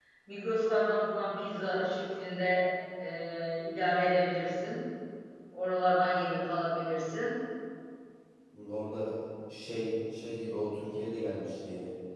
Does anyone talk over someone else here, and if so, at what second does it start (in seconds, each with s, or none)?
none